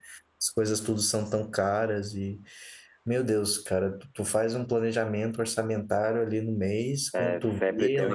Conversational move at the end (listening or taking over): taking over